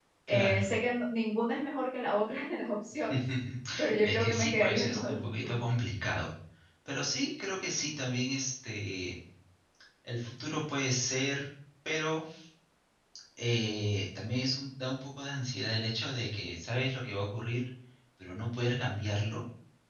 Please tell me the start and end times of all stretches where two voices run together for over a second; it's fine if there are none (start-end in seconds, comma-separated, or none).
4.0-5.6